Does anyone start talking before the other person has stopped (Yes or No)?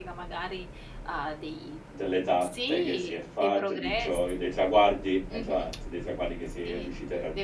Yes